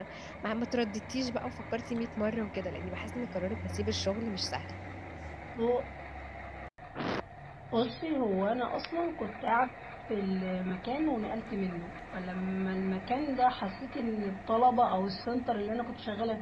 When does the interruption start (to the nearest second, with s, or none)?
none